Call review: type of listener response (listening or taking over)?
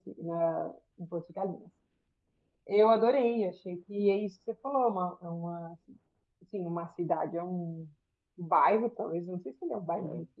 listening